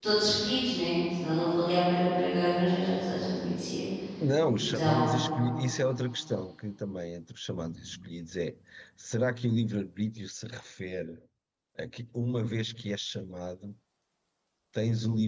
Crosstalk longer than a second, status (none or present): none